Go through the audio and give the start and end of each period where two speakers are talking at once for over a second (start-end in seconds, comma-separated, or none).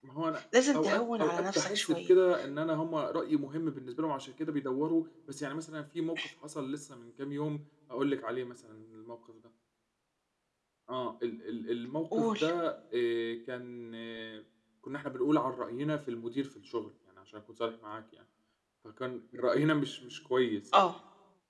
0.7-2.1